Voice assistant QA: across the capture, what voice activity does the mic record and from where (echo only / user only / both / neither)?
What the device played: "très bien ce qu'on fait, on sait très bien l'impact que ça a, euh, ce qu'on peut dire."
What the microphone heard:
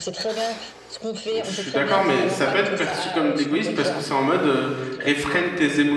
both